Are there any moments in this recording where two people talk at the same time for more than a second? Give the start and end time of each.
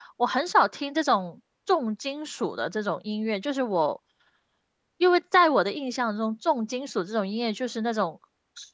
none

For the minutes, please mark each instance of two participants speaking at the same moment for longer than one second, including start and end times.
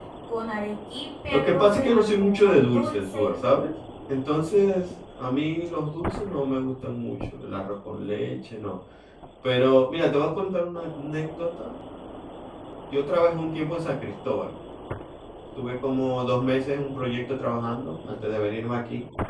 1.3-3.3

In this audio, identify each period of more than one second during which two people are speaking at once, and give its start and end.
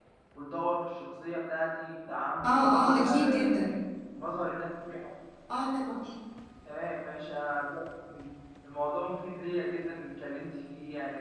2.4-3.8

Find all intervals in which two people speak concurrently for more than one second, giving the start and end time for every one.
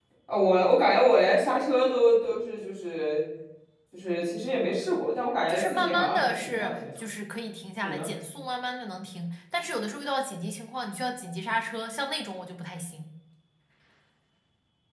5.5-6.8

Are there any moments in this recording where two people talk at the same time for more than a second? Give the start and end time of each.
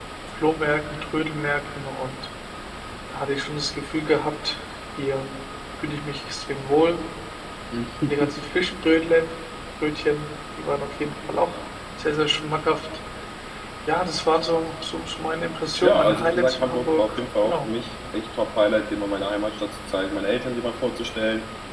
15.8-17.7

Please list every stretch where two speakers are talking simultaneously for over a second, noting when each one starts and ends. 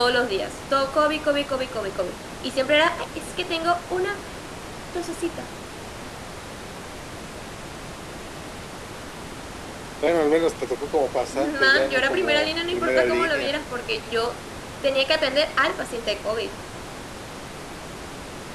11.3-13.5

